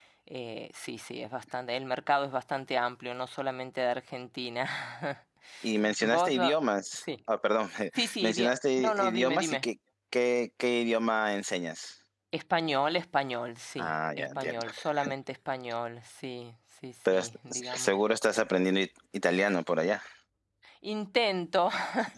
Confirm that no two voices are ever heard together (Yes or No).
No